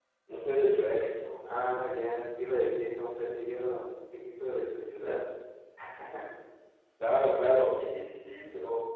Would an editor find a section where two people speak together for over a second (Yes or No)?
No